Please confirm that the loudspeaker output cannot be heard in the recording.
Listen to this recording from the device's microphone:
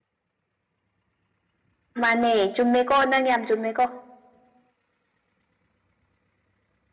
Yes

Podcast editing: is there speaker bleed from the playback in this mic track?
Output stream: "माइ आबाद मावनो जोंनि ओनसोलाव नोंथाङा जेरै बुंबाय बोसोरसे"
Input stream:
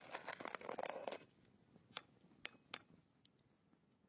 No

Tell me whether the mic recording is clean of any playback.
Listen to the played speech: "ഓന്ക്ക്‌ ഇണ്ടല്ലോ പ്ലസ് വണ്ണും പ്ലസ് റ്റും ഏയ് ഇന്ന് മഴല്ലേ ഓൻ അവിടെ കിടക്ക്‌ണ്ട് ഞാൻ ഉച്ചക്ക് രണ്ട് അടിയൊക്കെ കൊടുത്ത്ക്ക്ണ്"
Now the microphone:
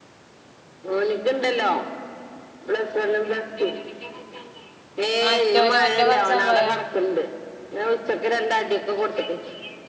No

